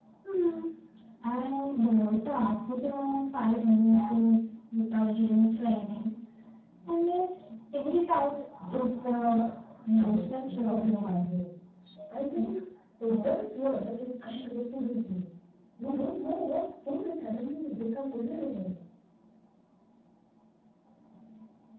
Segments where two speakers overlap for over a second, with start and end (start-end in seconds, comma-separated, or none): 10.0-11.2